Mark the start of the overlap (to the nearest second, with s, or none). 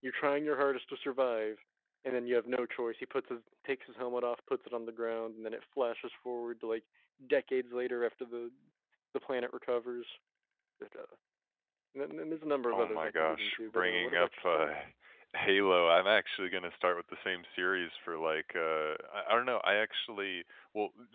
13 s